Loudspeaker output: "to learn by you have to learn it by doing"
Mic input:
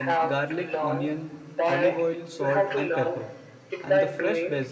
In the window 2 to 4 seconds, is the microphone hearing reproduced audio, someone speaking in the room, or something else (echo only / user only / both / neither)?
both